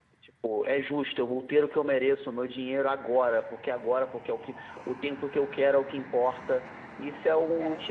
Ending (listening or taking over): listening